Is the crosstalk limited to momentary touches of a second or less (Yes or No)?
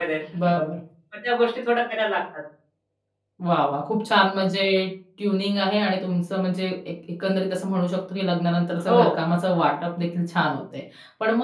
Yes